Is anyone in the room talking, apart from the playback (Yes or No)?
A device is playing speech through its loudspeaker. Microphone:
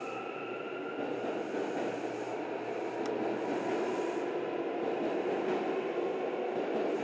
No